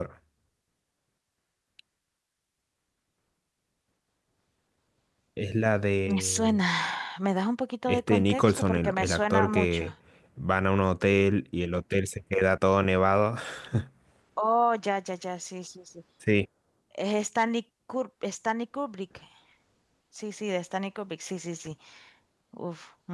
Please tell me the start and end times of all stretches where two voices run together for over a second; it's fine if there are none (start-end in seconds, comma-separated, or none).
7.9-9.8